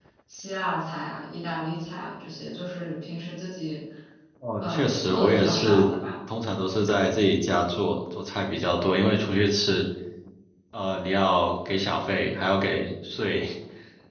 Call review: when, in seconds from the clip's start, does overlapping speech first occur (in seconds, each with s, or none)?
4.6 s